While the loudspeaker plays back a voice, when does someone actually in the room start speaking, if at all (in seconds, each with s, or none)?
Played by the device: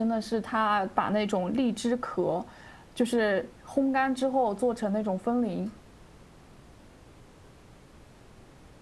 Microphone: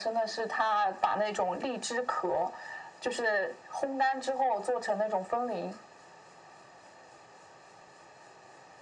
none